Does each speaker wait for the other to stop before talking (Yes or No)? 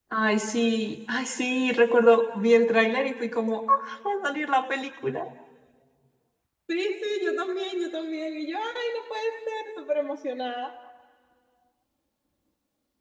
Yes